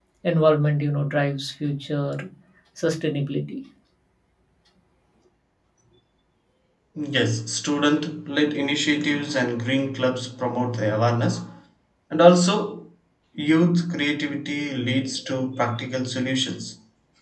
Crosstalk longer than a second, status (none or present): none